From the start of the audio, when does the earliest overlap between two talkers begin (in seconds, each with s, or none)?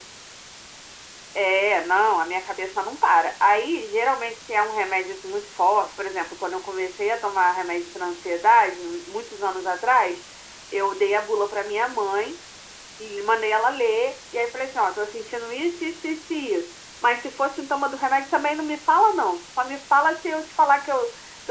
none